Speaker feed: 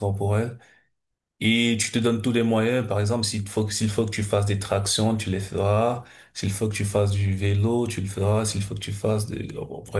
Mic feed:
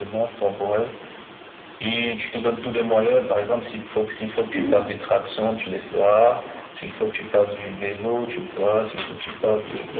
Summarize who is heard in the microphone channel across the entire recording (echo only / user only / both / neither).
both